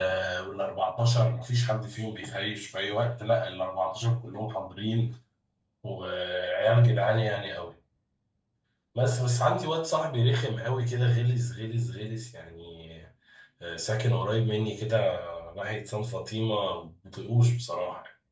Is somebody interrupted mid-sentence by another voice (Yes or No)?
No